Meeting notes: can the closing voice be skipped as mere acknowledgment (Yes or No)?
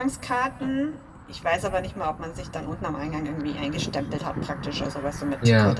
Yes